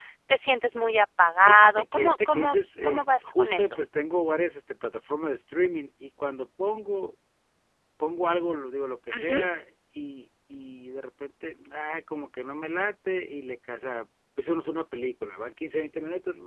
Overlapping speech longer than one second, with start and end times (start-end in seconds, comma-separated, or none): 1.4-3.8